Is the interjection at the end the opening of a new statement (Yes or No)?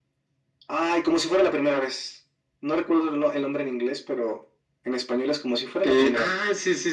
Yes